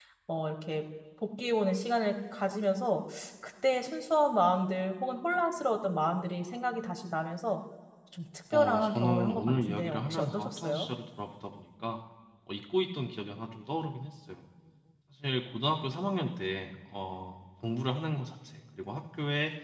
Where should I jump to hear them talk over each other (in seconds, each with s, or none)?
8.5 s